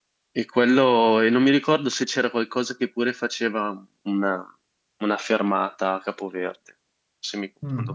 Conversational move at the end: taking over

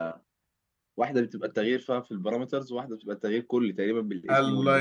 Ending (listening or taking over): taking over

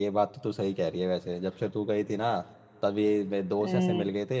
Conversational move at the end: listening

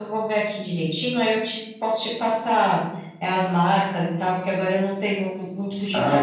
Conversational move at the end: taking over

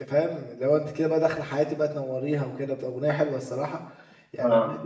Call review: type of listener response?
listening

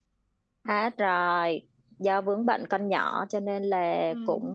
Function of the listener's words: listening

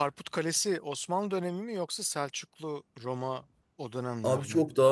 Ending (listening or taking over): taking over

